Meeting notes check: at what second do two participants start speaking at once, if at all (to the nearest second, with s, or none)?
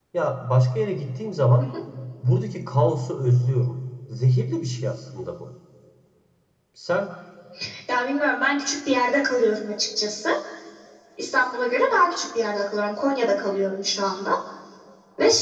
none